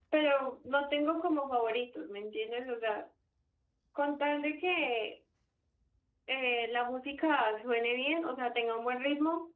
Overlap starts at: none

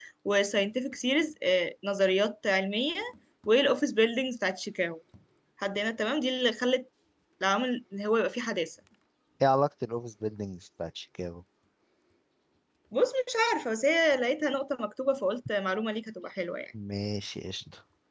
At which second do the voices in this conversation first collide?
none

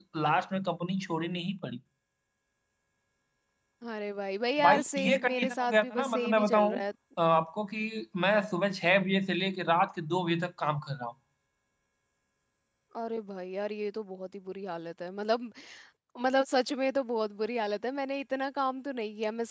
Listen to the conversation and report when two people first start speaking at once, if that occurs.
4.6 s

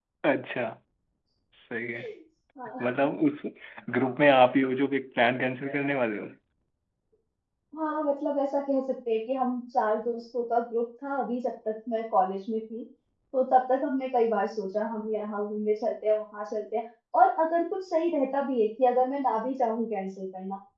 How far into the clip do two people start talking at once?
none

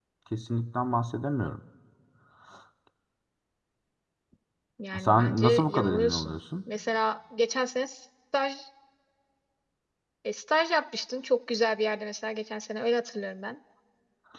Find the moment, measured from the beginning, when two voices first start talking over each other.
5.0 s

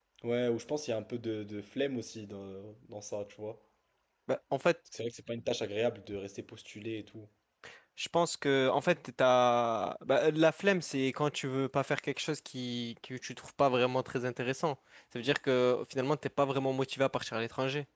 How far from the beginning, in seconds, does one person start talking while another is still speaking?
none

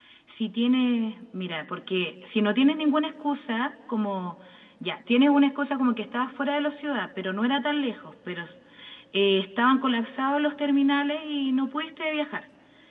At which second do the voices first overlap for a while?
none

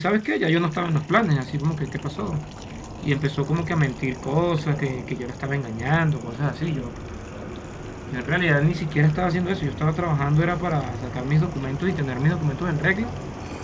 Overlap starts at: none

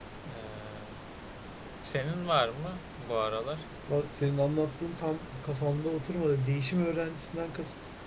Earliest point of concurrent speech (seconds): none

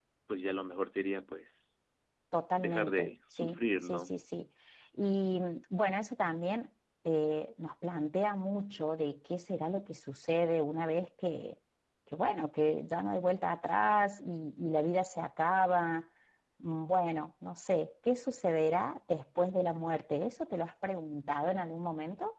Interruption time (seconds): 2.6 s

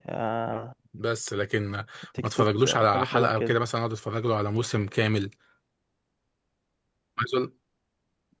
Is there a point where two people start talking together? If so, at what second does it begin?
2.2 s

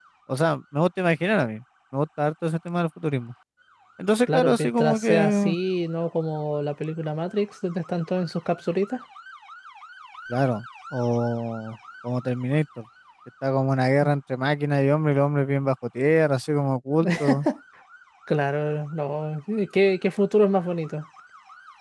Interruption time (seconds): 4.3 s

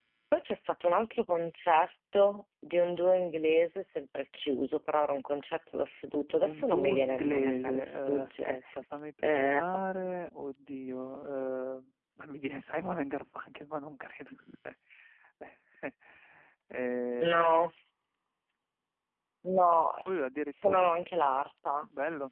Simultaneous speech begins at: 6.4 s

